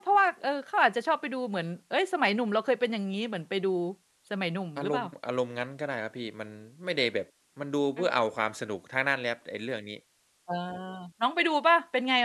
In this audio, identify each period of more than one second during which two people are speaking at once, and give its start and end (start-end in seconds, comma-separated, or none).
none